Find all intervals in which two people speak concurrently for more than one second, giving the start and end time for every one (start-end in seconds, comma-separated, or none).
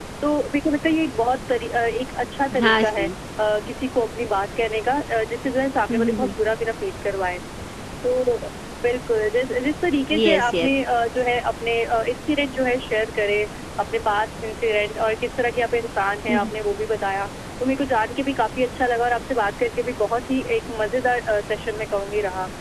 none